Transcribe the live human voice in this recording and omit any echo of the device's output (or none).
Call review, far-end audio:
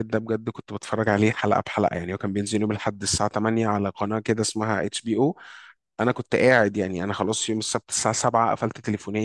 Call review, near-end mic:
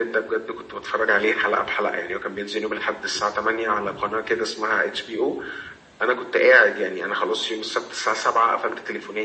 none